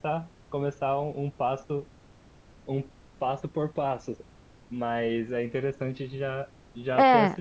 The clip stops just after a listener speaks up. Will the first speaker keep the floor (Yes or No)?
Yes